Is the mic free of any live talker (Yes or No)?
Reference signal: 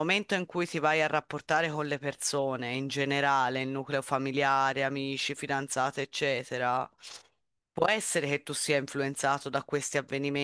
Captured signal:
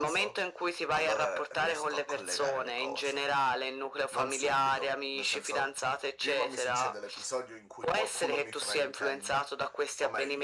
No